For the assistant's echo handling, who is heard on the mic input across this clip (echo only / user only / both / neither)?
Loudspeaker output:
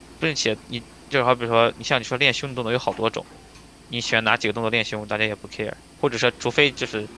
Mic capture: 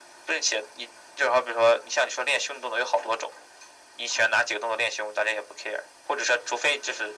echo only